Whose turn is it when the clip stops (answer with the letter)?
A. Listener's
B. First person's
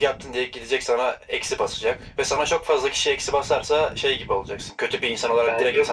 A